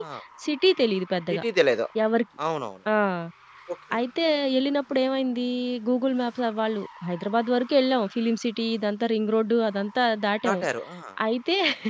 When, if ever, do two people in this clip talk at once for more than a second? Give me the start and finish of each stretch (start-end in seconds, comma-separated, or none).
none